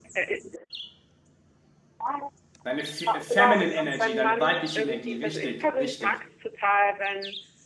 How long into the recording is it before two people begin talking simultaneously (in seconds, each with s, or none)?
3.3 s